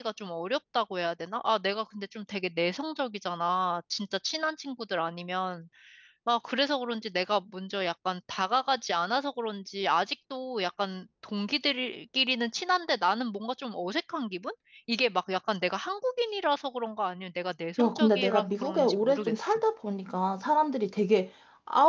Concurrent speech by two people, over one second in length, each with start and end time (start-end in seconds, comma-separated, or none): 17.8-19.6